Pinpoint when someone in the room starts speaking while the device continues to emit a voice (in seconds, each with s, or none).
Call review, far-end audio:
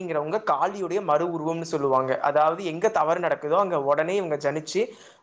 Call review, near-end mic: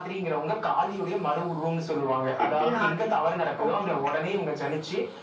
2.3 s